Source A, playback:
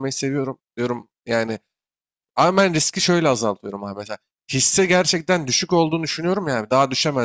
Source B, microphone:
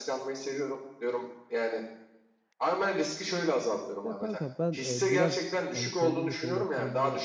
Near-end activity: present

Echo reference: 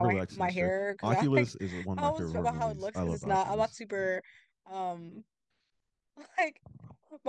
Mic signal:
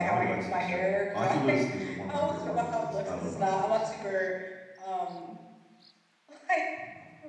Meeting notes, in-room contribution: none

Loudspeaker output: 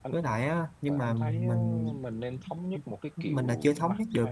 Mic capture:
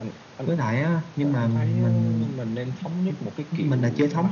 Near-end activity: none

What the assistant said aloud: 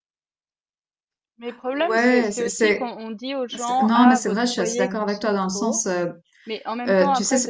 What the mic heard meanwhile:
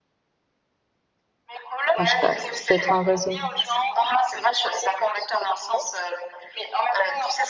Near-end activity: present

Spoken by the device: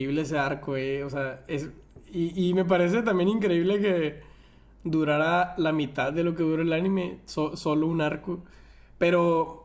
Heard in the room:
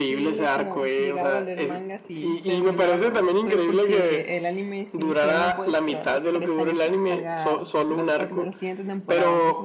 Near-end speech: present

